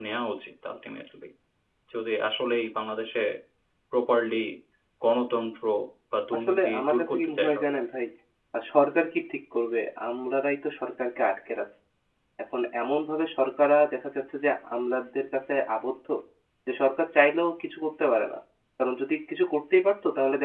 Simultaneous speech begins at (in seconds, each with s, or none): 6.3 s